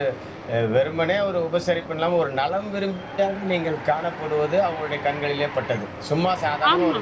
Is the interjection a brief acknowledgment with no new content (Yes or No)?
Yes